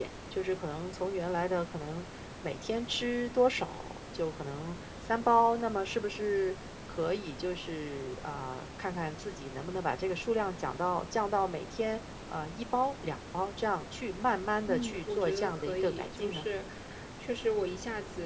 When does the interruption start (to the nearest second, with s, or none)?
15 s